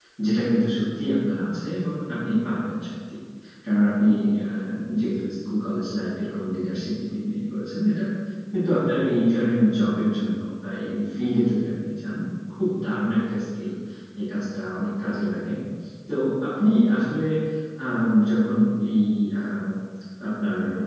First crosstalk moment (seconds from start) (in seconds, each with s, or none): none